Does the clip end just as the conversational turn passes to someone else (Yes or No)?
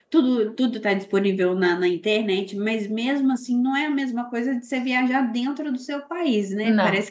No